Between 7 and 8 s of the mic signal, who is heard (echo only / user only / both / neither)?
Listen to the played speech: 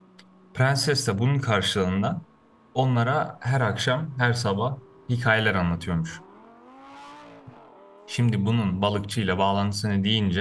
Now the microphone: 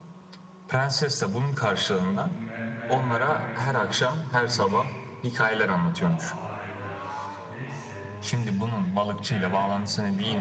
user only